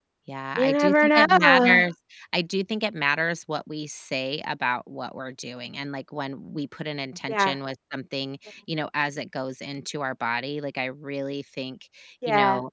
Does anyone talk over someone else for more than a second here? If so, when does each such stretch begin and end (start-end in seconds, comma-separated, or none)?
0.6-1.9